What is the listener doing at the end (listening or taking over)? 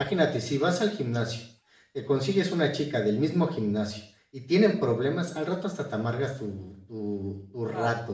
taking over